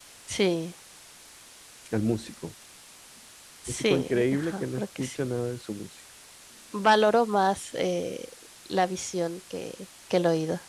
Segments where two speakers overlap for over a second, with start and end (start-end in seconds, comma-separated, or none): 3.7-5.2